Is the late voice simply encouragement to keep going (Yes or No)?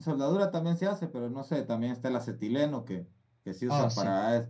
Yes